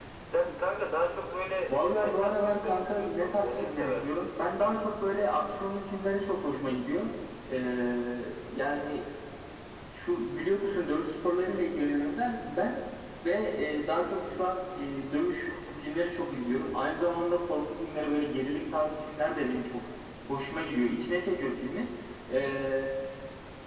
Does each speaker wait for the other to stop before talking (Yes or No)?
No